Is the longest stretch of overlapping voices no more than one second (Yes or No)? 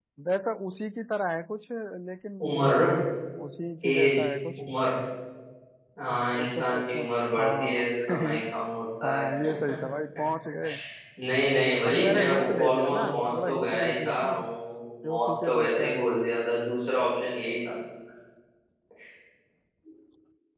No